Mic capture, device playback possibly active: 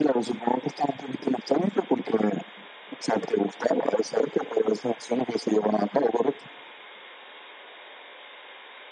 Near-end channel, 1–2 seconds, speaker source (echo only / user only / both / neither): echo only